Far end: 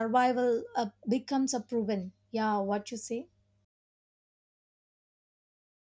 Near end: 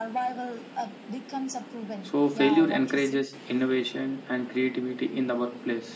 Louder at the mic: user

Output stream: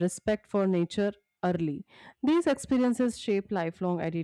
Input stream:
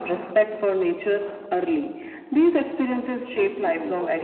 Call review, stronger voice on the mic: echo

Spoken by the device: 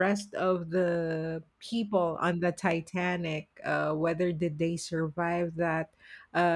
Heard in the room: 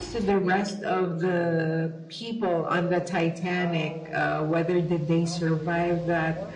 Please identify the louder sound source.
echo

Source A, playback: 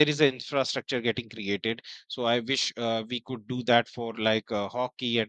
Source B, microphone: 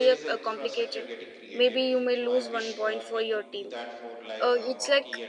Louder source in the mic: user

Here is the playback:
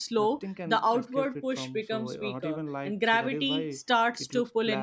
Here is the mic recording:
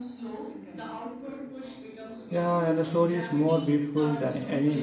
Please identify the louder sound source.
user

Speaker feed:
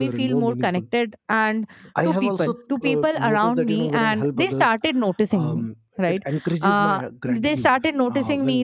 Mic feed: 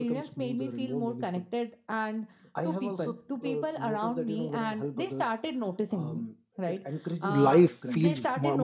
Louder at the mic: user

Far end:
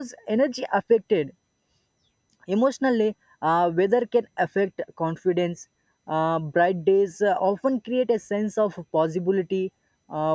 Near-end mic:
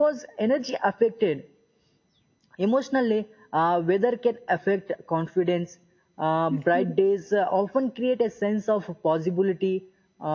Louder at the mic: echo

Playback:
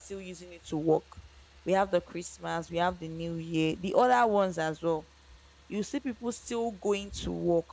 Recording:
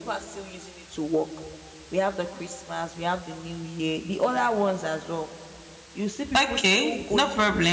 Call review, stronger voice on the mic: user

